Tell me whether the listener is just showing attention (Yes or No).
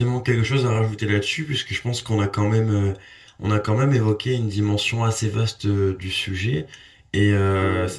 Yes